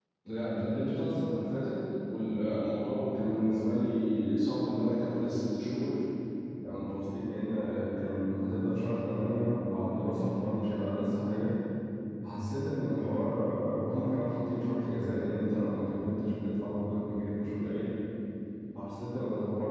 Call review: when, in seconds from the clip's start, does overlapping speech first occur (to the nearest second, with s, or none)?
none